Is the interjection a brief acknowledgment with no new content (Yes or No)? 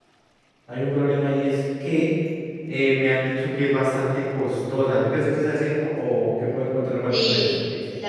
No